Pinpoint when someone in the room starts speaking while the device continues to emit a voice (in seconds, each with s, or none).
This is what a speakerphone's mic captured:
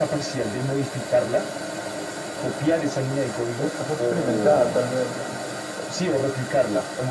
3.6 s